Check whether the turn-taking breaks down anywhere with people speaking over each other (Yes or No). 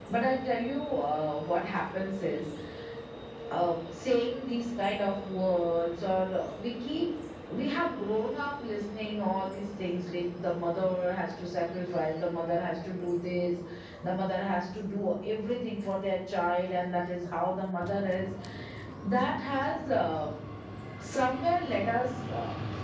No